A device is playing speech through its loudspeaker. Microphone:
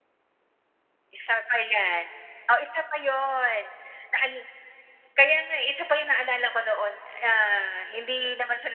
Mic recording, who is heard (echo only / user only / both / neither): echo only